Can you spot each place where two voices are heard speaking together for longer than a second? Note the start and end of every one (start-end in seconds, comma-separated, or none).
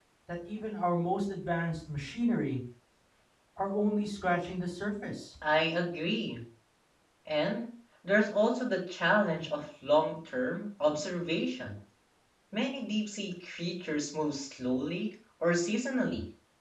none